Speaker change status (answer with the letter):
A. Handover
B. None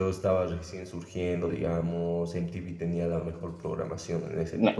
A